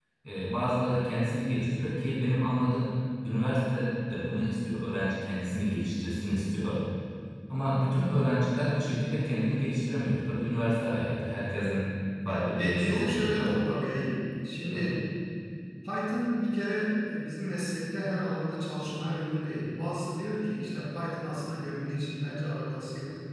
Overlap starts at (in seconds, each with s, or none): 12.2 s